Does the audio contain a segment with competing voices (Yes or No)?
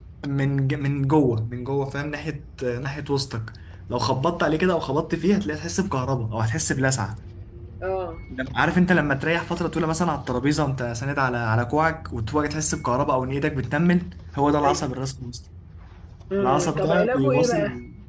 Yes